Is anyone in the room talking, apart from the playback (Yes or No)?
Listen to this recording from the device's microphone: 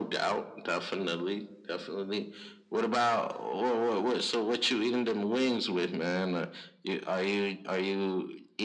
No